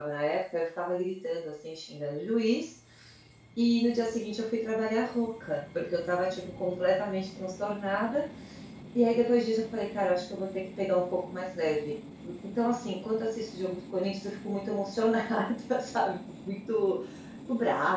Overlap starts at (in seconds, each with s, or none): none